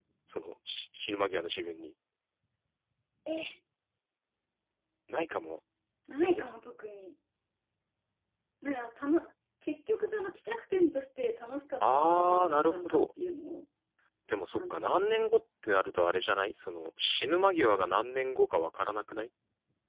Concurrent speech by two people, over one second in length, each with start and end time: 11.8-13.0

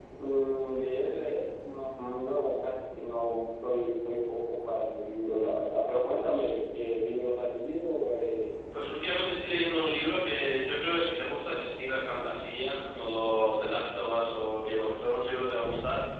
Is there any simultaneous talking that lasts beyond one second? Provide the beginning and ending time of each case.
none

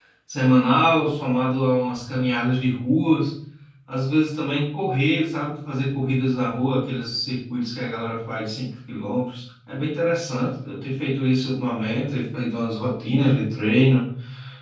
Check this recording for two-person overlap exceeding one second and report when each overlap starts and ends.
none

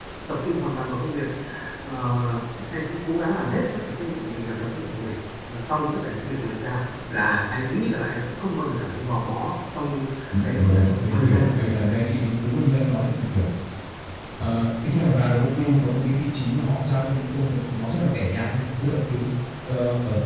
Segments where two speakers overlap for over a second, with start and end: 10.4-12.0

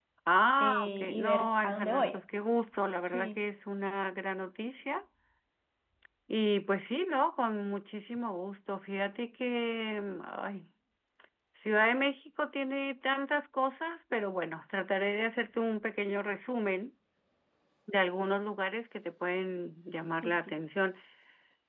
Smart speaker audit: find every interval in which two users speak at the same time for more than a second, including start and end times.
0.6-2.2

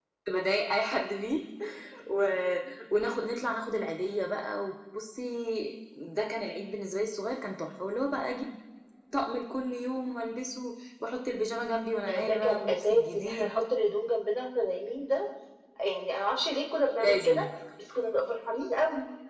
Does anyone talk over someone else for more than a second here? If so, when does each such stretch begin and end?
12.0-13.5

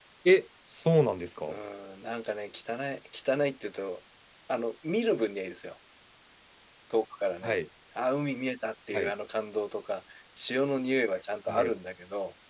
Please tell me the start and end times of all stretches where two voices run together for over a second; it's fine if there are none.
none

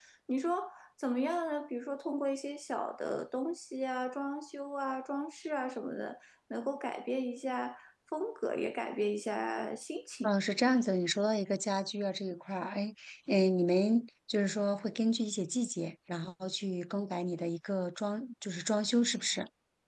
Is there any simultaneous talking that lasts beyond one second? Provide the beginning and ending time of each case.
none

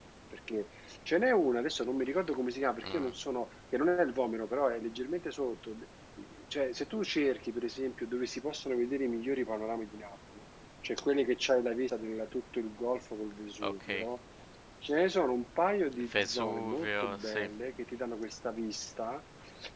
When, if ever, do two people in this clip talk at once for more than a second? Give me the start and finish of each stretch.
16.0-17.5

